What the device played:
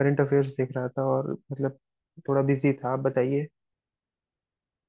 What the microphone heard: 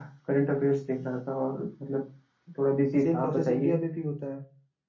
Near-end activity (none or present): present